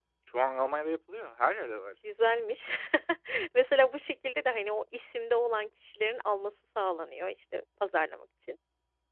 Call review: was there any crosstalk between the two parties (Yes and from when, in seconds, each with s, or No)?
No